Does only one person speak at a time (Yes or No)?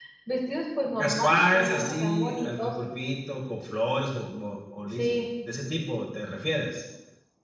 No